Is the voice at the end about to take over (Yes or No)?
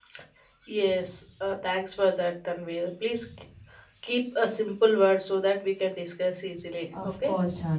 Yes